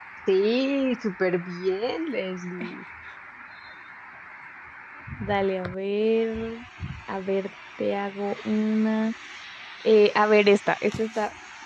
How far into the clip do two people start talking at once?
none

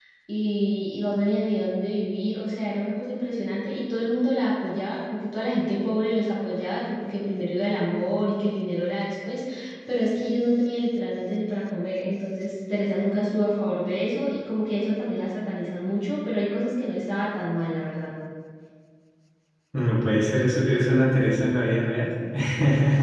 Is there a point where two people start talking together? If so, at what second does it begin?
none

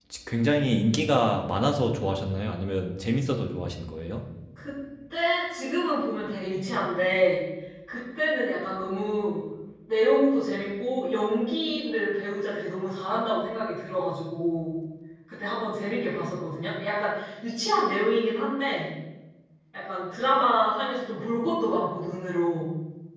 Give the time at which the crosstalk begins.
none

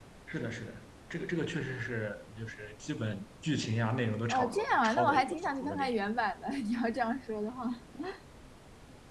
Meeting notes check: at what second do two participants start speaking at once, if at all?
4 s

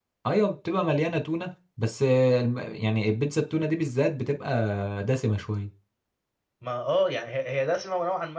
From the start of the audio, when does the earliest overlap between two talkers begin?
none

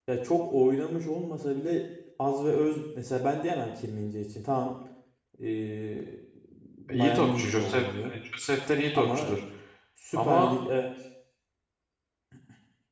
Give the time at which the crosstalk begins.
7 s

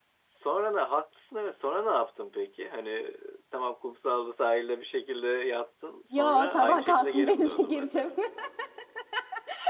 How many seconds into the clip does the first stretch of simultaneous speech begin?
6 s

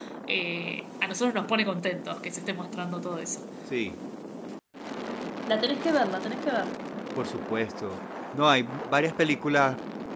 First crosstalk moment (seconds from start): none

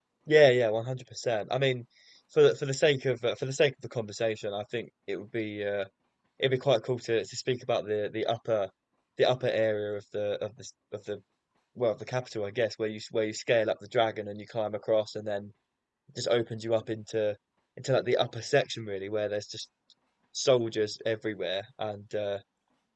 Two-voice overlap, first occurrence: none

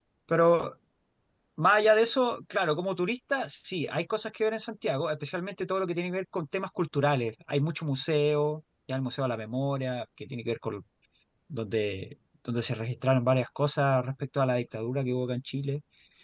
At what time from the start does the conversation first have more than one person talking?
none

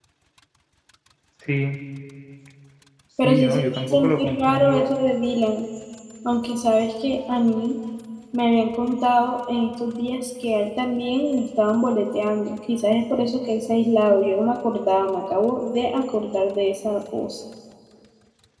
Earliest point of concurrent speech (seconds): 3 s

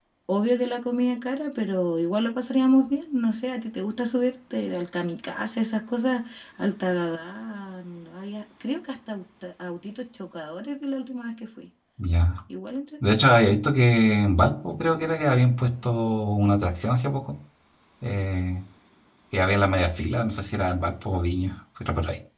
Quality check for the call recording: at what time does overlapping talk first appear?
none

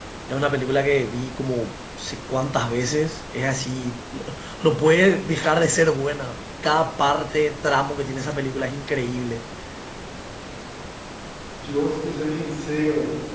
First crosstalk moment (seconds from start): none

